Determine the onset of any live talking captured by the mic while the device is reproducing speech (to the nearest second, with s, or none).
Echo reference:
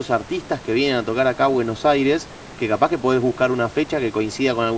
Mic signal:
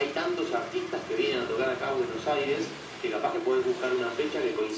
none